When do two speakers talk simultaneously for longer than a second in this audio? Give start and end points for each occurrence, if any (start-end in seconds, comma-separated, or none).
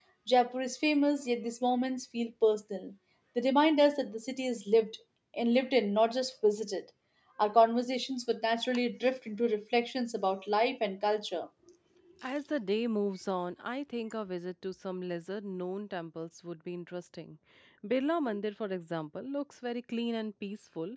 none